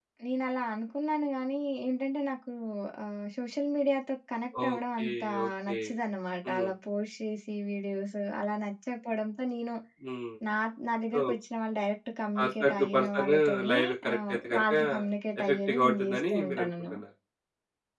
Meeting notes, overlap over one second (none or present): present